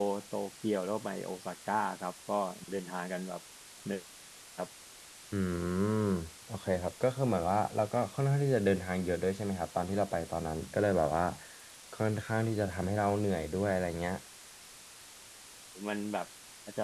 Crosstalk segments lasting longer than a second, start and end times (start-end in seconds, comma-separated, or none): none